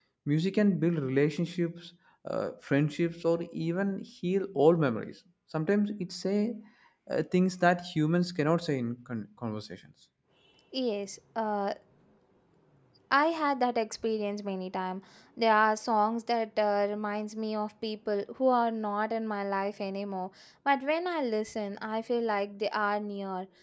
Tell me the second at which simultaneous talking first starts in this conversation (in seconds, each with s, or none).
none